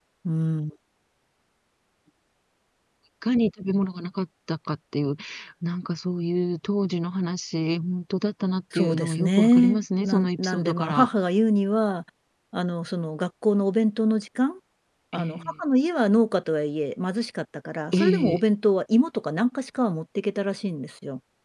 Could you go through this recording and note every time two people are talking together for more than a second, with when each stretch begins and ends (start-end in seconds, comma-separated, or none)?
8.7-11.1